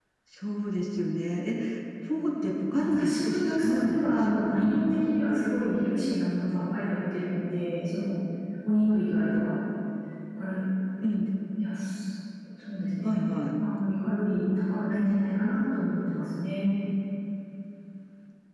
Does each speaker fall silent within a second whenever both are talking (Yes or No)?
No